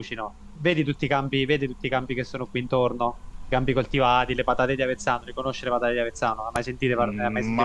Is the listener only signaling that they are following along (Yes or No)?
No